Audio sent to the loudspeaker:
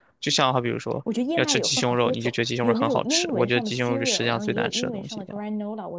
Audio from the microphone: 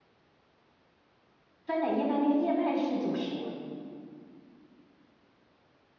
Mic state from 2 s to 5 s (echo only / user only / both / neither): user only